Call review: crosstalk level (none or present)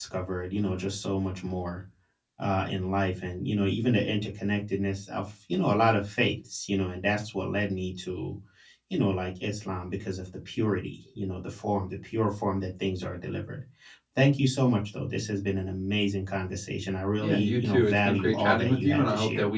present